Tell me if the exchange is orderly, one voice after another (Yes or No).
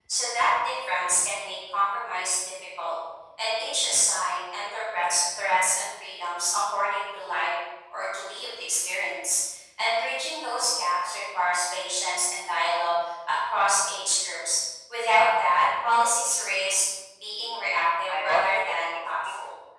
No